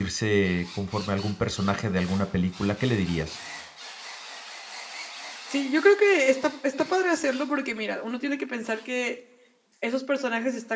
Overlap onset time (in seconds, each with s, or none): none